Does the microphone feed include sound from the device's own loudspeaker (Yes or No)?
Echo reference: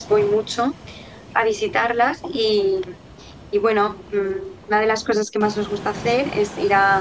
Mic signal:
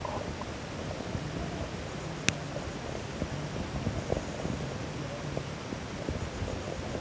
No